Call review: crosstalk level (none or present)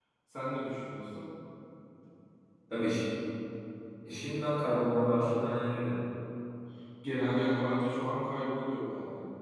none